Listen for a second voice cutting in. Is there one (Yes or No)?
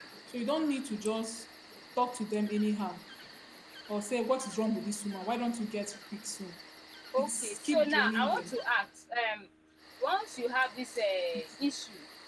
Yes